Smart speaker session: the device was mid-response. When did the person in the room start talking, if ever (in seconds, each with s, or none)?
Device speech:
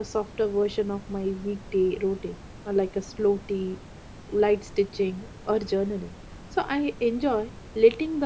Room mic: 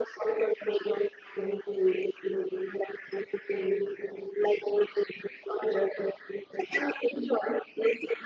none